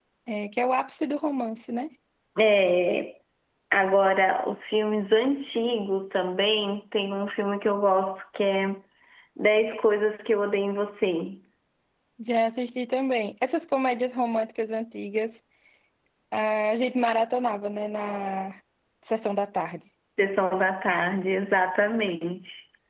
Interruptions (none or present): none